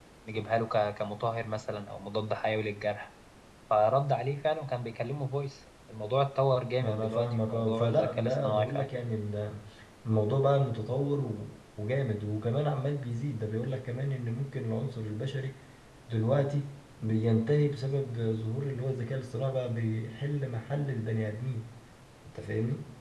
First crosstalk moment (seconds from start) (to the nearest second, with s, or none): 7 s